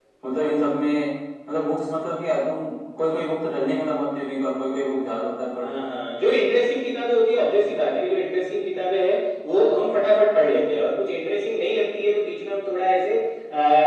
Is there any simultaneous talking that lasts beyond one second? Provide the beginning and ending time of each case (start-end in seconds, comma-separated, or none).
none